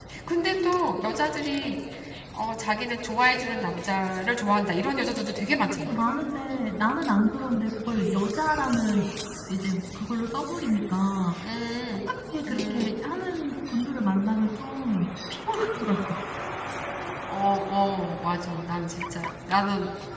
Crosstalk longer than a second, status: none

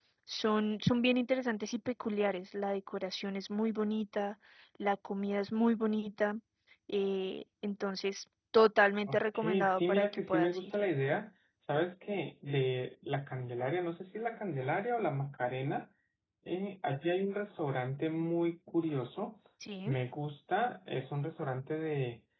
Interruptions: present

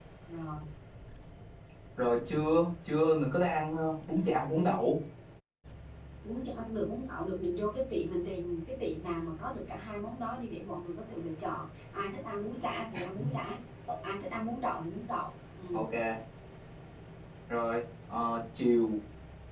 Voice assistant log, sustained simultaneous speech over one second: none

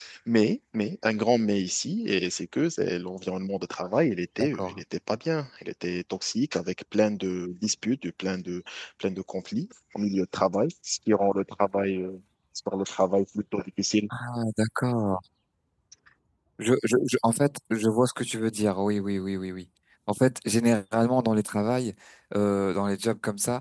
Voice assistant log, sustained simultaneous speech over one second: none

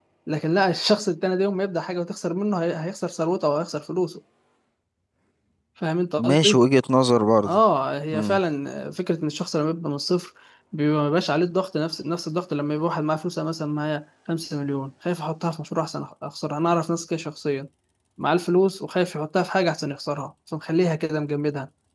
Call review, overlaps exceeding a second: none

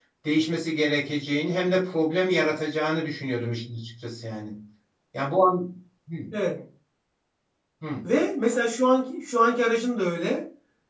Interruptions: none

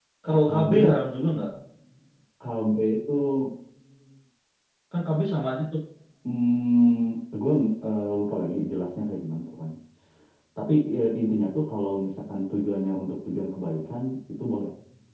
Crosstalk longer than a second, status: none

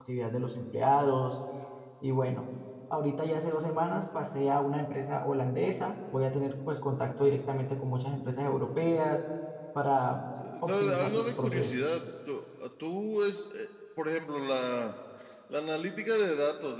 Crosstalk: present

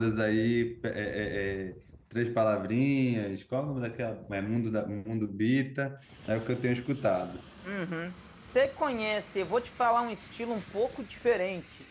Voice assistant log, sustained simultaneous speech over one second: none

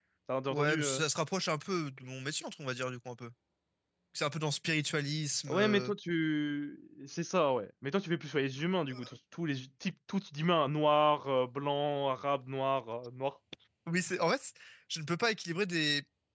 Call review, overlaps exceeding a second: none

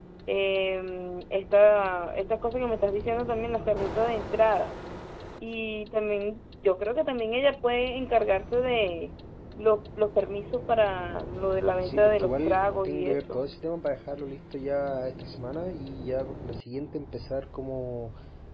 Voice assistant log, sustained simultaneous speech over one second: present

